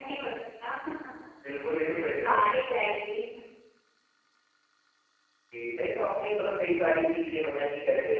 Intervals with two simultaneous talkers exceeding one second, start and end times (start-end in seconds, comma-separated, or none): none